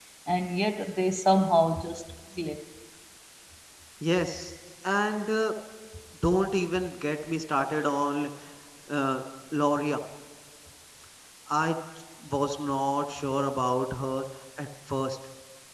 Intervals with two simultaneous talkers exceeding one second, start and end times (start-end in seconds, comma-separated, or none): none